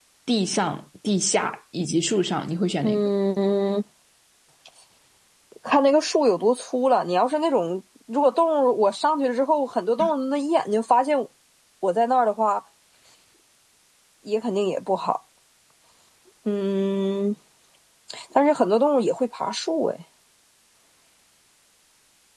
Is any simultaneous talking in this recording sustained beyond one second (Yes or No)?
No